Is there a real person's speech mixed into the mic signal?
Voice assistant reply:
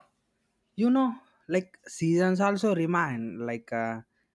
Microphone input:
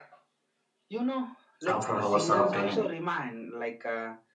Yes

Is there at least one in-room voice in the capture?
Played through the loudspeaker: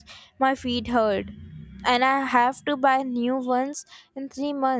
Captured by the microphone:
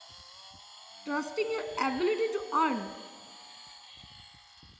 Yes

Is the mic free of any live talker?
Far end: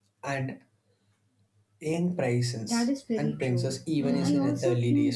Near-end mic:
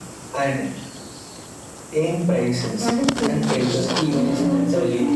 Yes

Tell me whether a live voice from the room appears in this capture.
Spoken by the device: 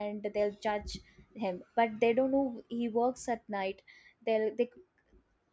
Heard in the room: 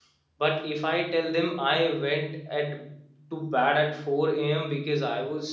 Yes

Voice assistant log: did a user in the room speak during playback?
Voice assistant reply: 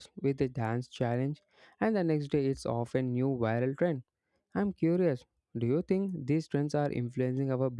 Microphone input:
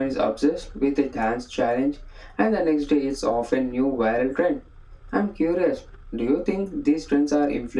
No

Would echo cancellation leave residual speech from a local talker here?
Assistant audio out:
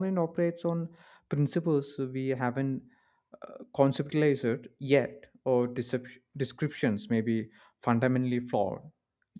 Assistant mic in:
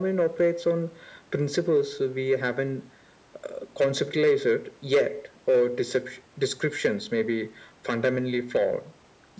No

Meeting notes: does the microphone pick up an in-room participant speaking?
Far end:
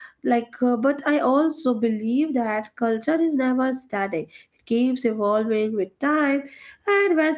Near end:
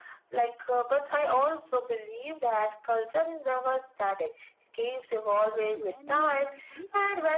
Yes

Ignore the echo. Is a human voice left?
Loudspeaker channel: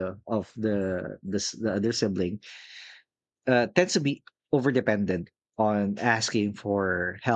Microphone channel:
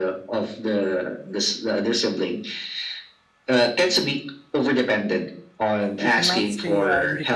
Yes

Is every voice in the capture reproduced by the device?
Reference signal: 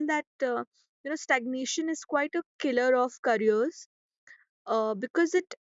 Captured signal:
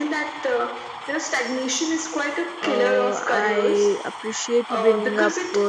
No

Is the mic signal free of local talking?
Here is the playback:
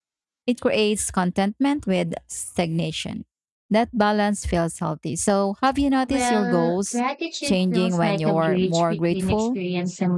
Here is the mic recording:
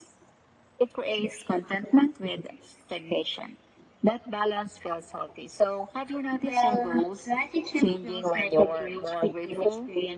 Yes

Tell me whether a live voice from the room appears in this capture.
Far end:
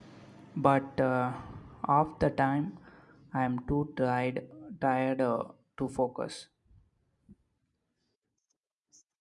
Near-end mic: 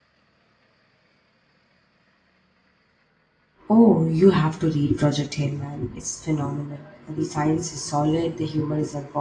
Yes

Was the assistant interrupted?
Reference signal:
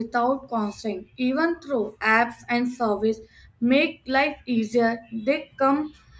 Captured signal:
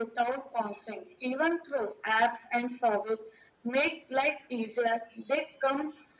No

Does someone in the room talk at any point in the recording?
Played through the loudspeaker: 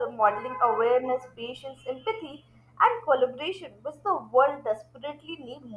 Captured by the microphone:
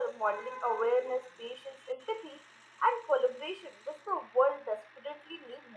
No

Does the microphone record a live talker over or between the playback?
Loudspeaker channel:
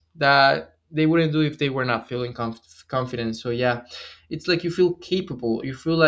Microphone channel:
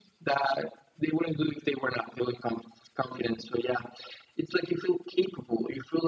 No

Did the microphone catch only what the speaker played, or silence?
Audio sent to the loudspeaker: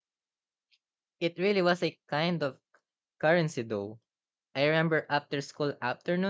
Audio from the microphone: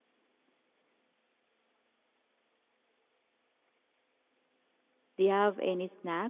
No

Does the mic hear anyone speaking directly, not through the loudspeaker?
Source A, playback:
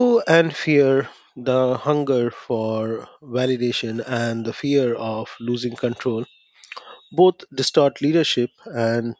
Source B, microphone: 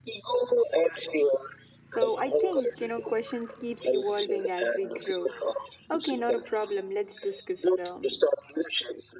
Yes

